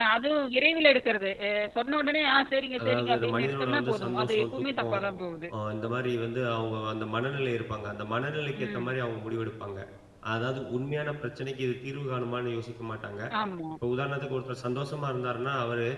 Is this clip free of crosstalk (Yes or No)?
No